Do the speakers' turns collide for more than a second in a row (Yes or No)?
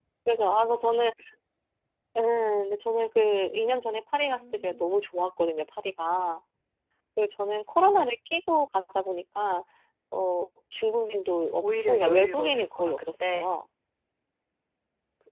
Yes